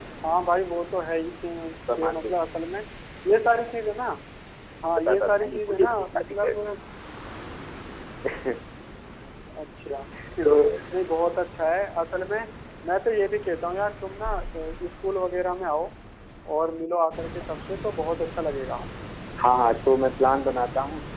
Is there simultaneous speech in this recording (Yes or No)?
Yes